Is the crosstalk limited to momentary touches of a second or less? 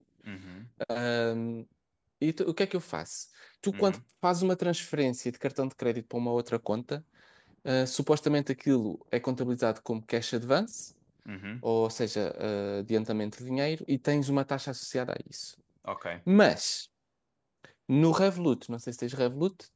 Yes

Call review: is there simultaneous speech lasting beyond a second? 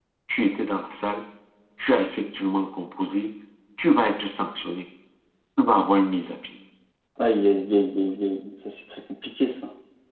No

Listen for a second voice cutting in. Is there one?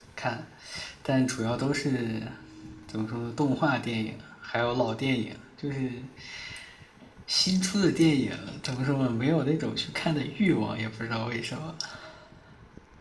No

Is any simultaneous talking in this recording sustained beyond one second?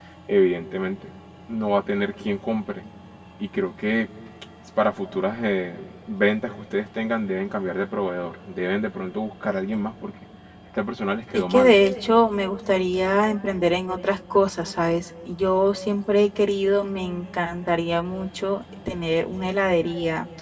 No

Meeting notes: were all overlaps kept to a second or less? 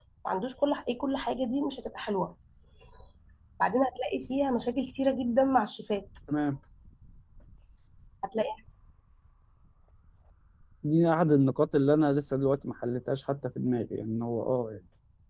Yes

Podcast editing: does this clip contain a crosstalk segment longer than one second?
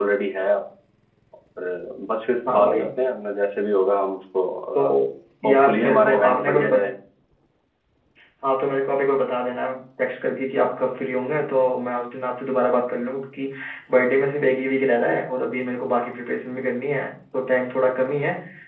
Yes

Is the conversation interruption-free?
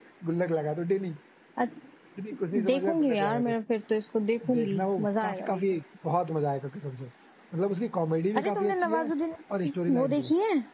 No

